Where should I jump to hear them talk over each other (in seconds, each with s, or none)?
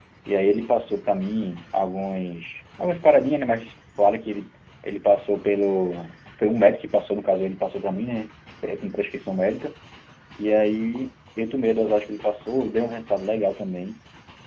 none